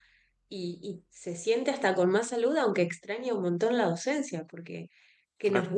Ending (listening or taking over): listening